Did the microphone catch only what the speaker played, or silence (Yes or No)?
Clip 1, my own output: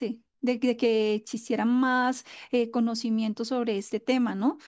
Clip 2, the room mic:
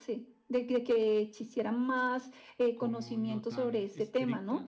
No